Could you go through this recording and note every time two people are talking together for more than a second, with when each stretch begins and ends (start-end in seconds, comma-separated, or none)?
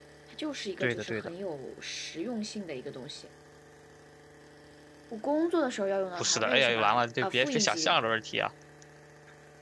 6.2-7.9